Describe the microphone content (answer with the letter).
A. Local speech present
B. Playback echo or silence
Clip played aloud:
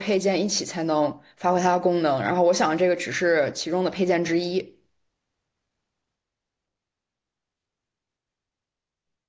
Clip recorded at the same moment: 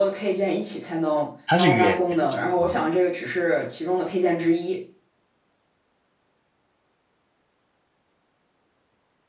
A